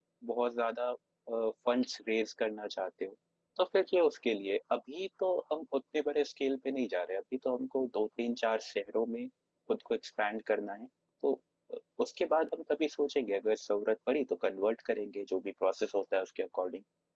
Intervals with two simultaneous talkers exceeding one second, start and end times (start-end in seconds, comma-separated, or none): none